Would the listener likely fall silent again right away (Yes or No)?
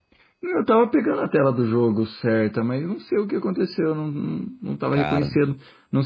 Yes